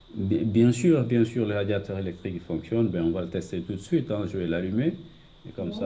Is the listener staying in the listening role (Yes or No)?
Yes